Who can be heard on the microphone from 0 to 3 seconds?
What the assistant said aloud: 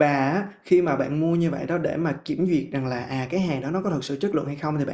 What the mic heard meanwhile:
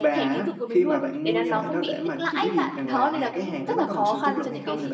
both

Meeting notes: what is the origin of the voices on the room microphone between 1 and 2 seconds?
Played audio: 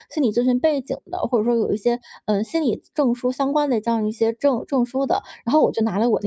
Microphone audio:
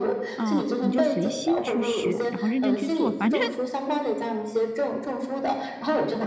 both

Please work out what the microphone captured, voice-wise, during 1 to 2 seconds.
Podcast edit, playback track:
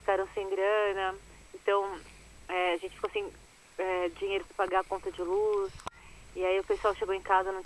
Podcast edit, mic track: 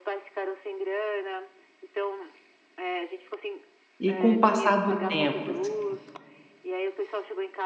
echo only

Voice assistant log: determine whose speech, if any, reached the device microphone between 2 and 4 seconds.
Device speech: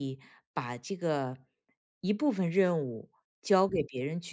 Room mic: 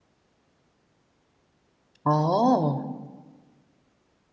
user only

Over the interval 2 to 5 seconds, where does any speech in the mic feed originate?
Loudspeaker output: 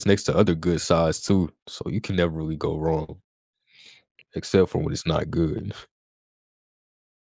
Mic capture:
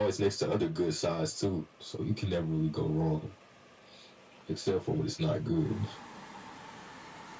echo only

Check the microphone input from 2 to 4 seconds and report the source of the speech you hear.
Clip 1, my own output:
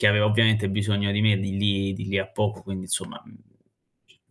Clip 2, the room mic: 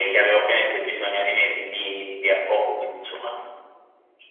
echo only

